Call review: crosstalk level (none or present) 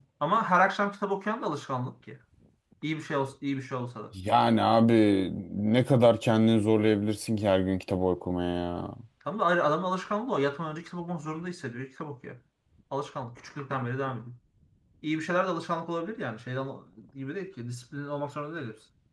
none